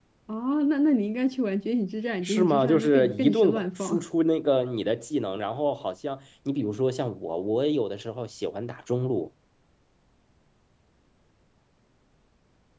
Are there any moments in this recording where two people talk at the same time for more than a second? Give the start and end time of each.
2.2-4.0

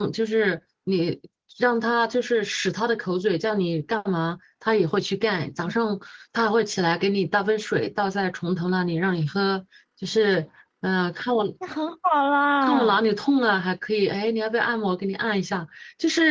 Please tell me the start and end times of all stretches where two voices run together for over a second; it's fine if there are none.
none

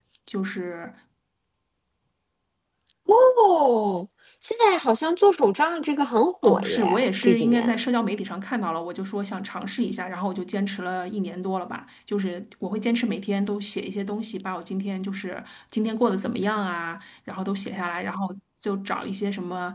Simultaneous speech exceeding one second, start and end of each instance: 6.4-7.8

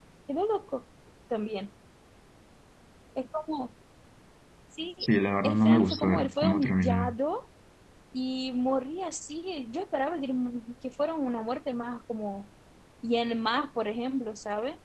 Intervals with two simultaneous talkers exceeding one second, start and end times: 5.4-7.2

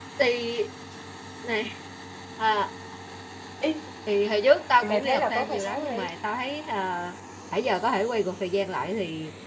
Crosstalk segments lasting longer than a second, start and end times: 4.8-6.1

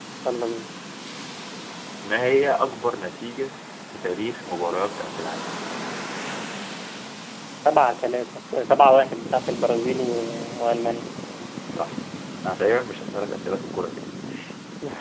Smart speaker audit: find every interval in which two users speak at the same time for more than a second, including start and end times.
none

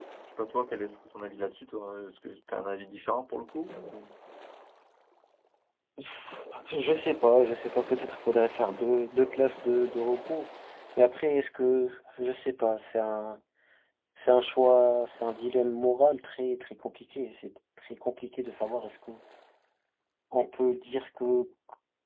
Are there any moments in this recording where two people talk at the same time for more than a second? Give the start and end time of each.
none

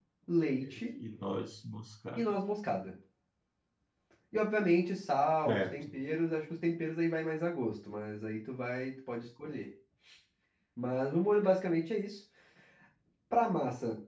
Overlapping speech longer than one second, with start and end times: none

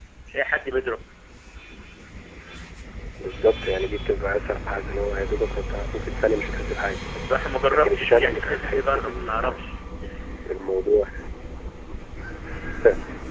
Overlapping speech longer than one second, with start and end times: 7.7-9.6

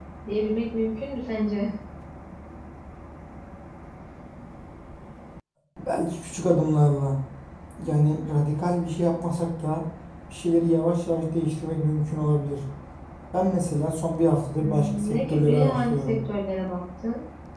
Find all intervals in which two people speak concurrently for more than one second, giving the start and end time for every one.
14.6-16.2

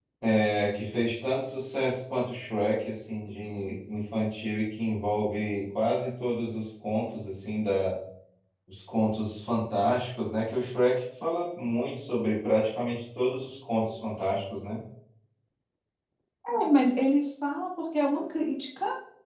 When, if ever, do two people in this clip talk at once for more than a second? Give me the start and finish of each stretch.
none

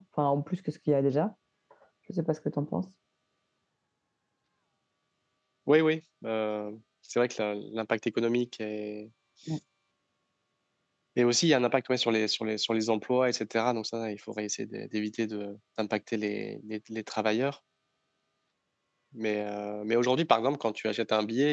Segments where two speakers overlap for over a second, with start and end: none

